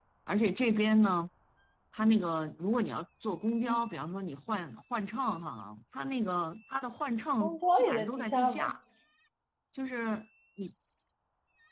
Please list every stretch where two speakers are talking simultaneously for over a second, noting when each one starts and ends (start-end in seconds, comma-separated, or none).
7.4-8.7